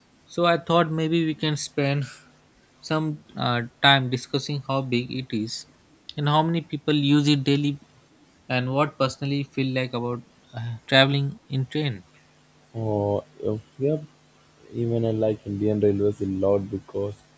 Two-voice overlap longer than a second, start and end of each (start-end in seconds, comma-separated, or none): none